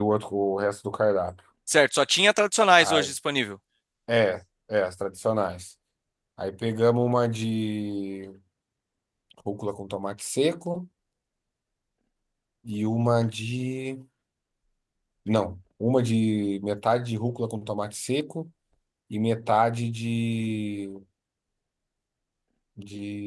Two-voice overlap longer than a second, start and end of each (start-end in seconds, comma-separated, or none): none